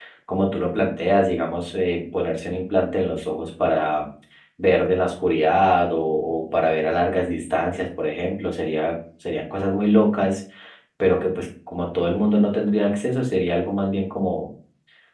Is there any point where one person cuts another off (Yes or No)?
No